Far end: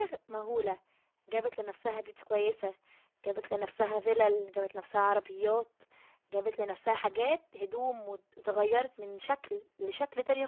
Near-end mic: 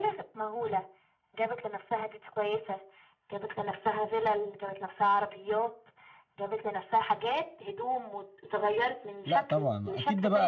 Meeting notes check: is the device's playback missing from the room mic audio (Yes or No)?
No